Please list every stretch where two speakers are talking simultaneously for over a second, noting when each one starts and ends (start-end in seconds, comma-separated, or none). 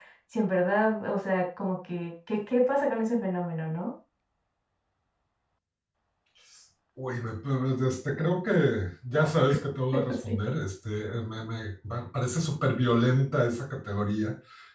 none